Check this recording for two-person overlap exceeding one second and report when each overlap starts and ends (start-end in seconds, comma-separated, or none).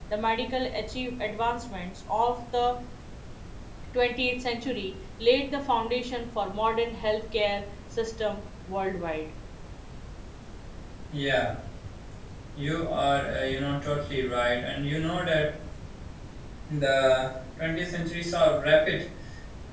none